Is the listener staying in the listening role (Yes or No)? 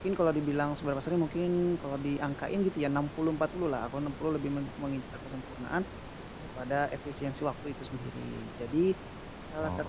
Yes